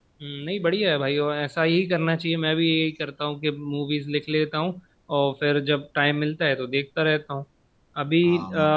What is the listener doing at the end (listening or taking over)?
listening